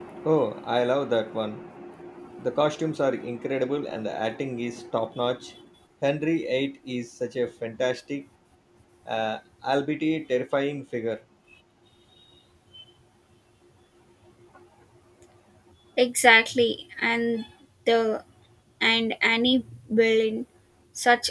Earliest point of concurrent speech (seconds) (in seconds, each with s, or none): none